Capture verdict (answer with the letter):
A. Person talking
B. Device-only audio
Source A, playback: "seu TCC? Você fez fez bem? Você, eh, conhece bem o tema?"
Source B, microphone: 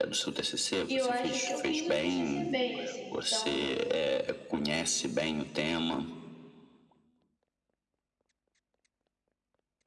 A